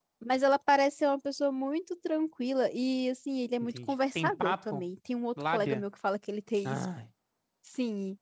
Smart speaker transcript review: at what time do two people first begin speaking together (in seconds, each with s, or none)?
3.6 s